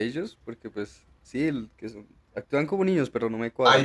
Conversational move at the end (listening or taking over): taking over